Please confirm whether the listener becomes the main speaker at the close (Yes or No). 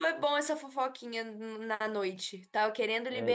Yes